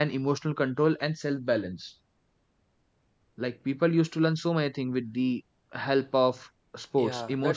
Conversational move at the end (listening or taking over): taking over